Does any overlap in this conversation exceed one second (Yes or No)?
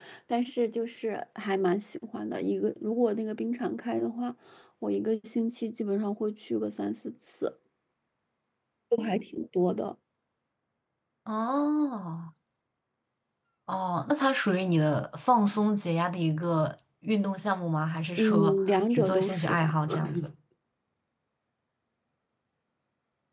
Yes